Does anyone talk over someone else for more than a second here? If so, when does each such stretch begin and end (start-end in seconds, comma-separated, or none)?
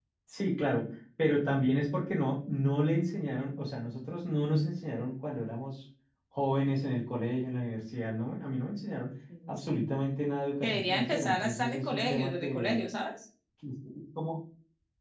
10.6-12.8